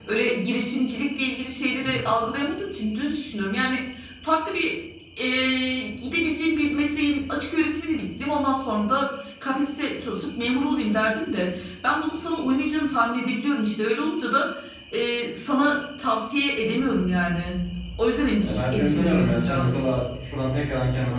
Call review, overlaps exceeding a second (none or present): present